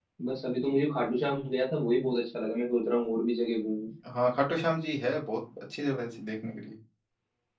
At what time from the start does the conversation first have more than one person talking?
none

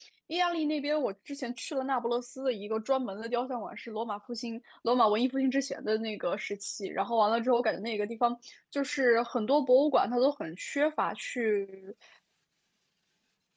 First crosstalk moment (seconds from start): none

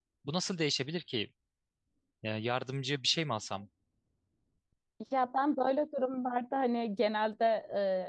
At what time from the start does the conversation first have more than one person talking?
none

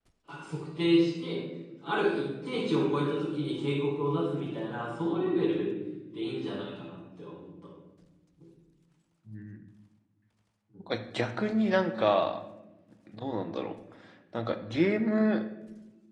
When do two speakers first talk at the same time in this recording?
none

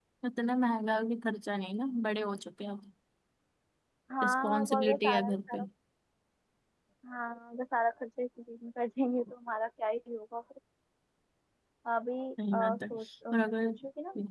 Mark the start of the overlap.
4 s

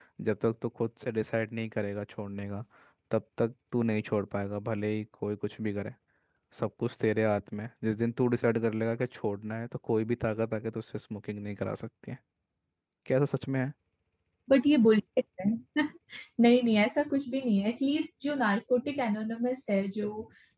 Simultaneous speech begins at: none

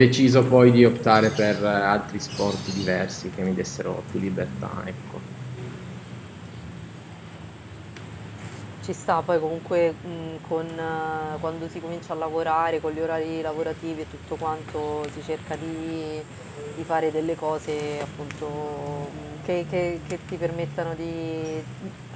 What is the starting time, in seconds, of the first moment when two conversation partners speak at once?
none

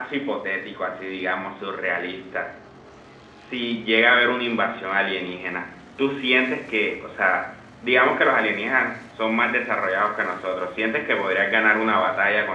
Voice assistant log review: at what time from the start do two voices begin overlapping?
none

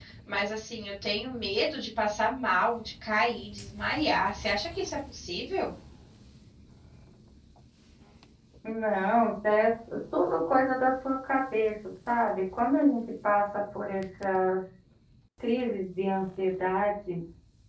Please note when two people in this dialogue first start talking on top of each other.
none

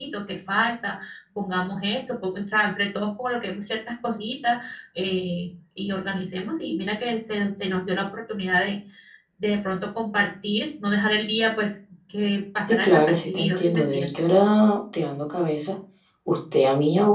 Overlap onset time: 13 s

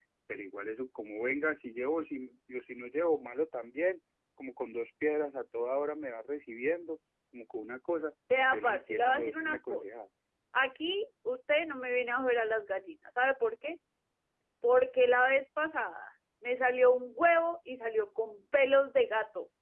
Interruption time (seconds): 8 s

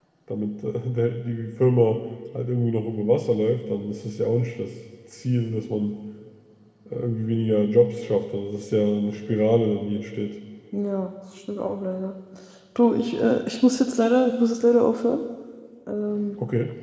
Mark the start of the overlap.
none

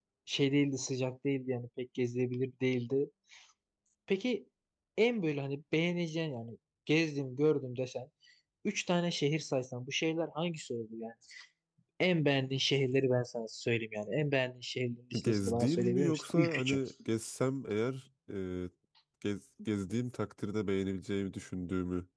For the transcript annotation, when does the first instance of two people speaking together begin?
15 s

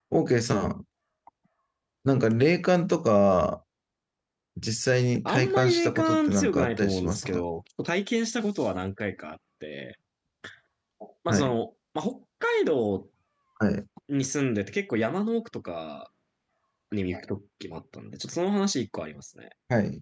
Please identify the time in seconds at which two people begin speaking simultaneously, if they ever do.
5 s

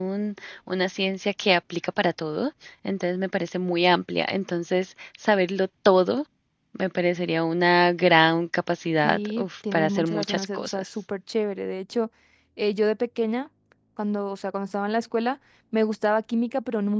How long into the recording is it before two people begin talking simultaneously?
9 s

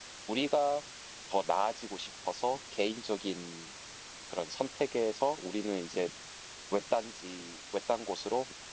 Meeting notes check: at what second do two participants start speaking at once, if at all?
none

